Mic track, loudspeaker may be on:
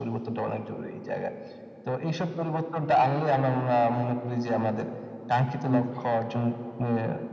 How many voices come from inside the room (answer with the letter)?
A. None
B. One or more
B